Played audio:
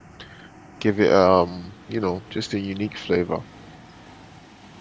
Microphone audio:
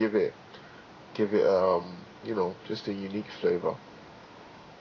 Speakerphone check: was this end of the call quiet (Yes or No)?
Yes